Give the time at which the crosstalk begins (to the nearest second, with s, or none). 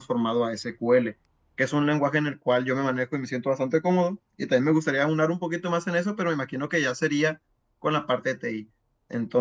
none